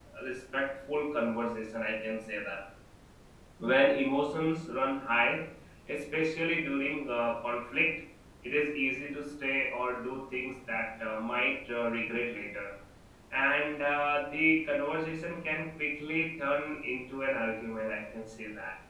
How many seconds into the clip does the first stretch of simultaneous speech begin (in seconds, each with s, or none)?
none